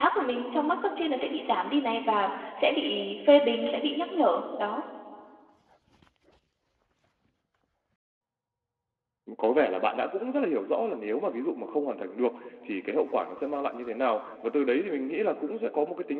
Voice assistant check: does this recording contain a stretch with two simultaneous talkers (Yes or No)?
No